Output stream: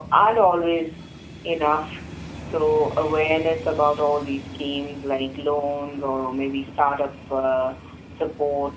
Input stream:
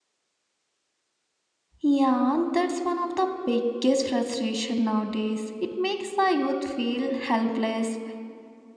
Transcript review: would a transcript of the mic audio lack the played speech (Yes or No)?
Yes